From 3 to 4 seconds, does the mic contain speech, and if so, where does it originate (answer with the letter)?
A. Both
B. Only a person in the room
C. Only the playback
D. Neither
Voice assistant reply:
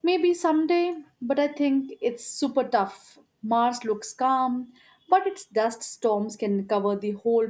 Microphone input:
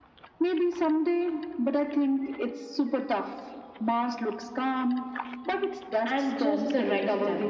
C